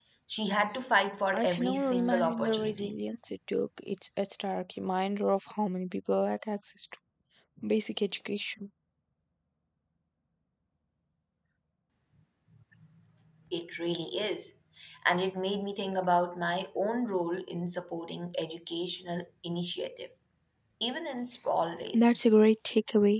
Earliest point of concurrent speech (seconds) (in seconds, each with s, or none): 1.3 s